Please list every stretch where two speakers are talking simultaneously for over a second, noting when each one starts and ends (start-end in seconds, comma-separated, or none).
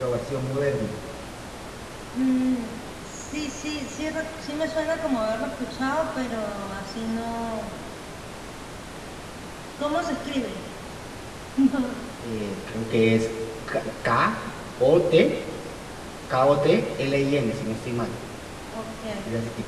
none